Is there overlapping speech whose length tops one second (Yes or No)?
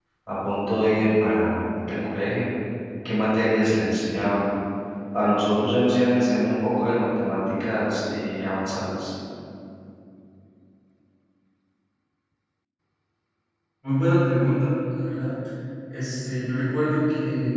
No